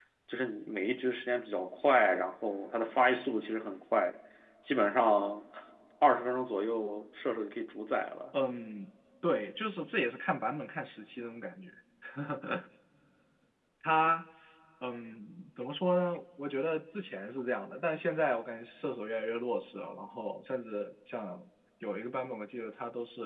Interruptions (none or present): none